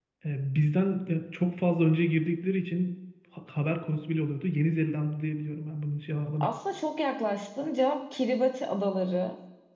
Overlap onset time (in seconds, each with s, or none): none